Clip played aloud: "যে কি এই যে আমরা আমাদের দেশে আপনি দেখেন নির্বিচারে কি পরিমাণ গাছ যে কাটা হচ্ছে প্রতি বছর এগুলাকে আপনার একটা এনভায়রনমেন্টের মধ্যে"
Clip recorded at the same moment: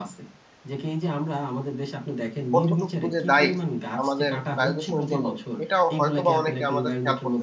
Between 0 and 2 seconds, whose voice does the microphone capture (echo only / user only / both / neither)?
echo only